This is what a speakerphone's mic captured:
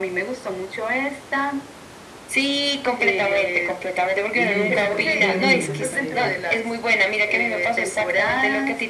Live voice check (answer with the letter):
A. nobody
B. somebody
B